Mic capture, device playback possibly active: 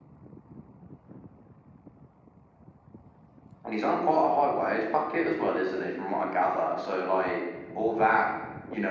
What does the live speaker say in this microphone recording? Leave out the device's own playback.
none

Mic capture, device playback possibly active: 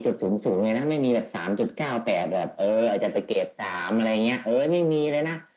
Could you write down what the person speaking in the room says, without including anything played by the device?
none

